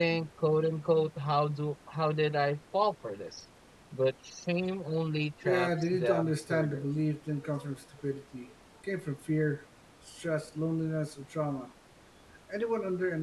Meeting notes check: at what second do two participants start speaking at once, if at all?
5.4 s

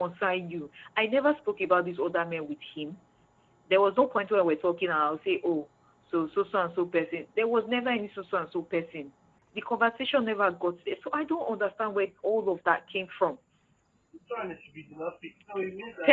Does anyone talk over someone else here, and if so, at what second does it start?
none

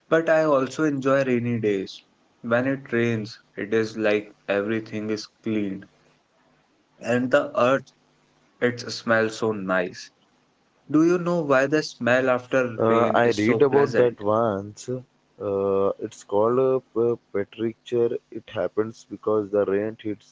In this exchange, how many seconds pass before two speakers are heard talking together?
12.8 s

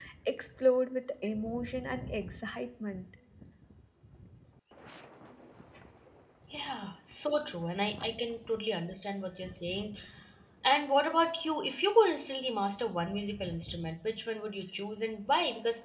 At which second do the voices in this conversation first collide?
none

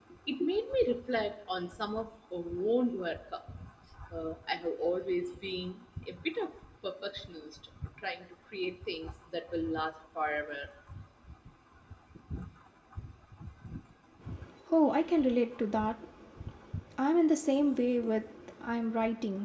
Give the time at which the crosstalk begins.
none

